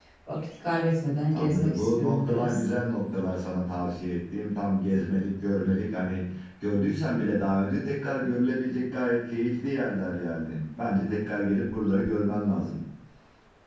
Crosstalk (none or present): present